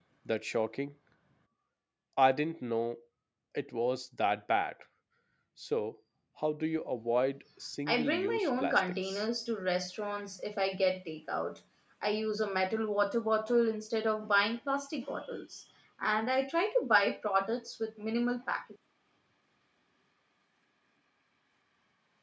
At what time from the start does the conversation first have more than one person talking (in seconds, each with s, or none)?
7.9 s